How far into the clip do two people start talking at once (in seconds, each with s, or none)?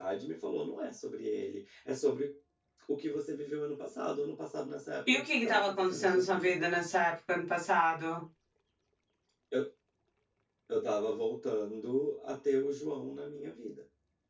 5.1 s